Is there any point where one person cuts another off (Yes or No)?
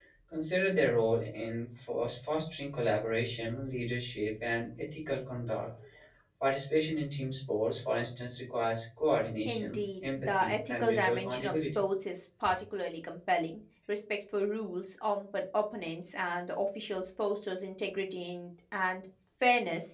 Yes